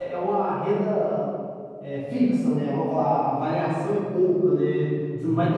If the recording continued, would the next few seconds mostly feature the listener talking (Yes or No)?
No